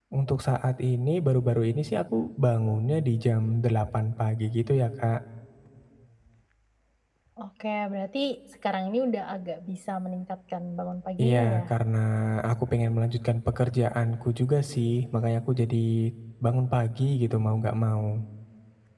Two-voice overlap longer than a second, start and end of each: none

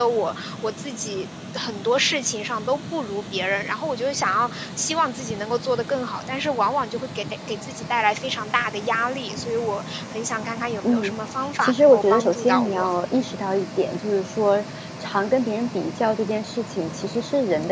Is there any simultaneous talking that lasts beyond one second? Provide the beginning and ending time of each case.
11.6-12.9

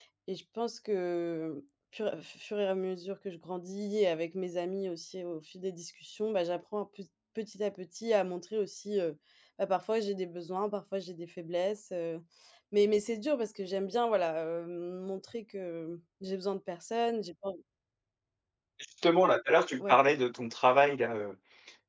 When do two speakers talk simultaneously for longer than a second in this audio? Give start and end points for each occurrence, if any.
none

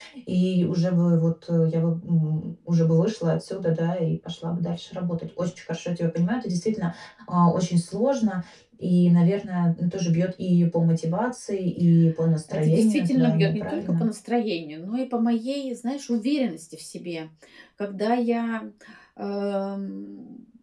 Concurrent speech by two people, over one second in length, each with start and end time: 12.5-14.1

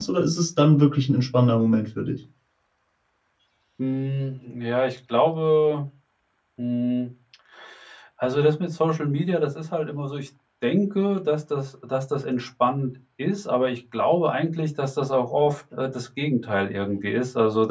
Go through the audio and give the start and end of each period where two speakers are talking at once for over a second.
none

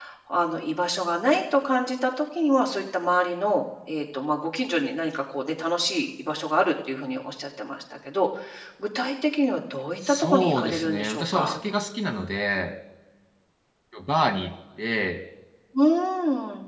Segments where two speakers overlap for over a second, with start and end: 10.1-11.6

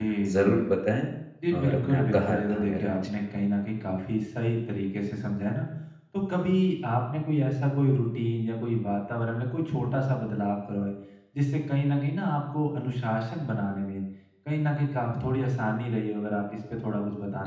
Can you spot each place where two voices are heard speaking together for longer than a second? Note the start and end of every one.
1.6-3.1

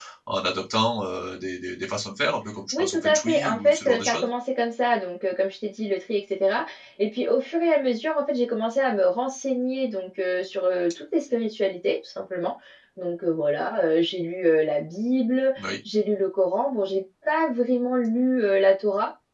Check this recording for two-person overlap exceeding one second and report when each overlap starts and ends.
2.8-4.3

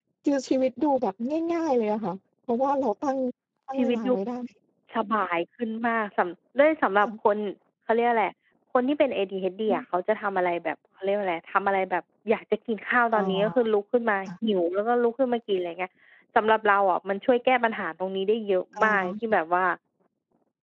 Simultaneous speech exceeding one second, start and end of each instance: none

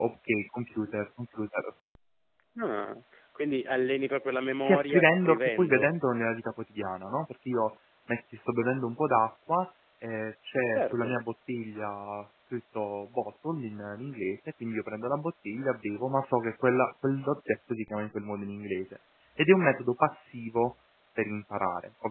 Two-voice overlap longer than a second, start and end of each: 4.6-6.0

